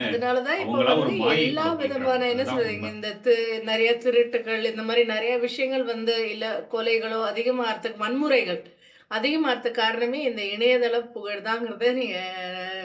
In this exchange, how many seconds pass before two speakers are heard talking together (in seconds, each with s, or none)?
0.6 s